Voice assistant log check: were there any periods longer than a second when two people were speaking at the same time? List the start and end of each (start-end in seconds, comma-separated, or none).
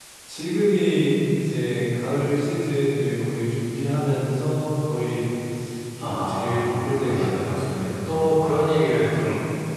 6.0-7.6